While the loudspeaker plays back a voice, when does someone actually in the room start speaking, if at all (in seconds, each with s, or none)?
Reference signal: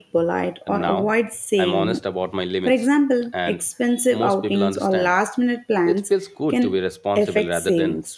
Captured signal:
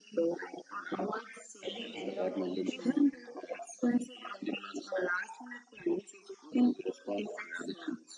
1.6 s